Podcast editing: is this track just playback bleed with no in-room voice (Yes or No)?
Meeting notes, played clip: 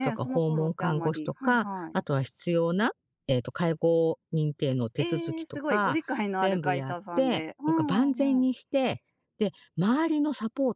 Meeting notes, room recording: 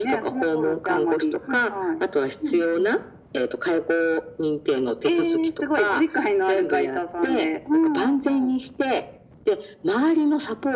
No